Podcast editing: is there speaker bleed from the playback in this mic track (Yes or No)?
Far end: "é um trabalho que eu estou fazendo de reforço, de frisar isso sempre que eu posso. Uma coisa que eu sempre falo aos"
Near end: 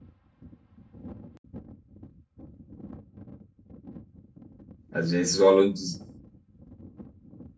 No